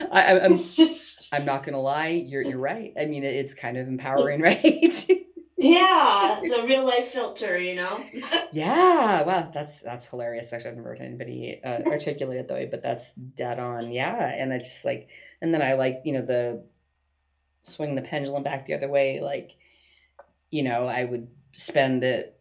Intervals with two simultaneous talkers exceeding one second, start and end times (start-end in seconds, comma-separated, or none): none